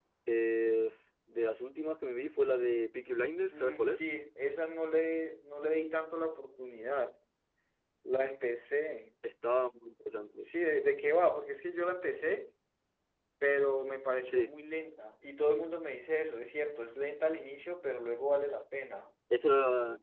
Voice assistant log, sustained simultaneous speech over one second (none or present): none